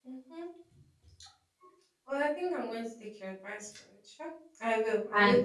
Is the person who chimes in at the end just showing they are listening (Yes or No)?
No